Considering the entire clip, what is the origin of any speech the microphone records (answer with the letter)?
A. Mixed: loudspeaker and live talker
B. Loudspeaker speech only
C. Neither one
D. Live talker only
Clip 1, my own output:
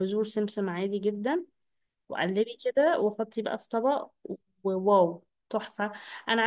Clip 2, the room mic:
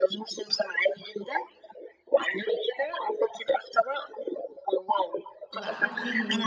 A